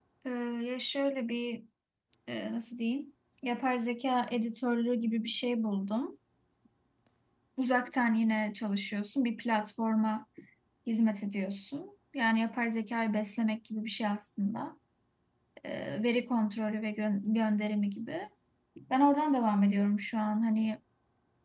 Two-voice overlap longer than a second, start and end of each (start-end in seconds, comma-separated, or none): none